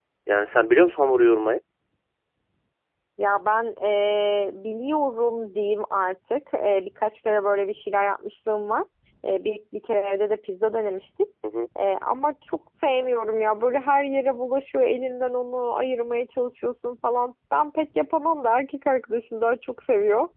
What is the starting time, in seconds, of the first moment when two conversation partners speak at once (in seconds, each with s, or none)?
none